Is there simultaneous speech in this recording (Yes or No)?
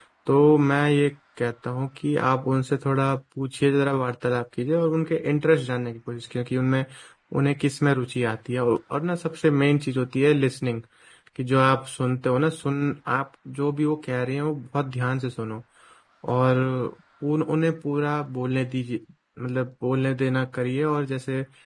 No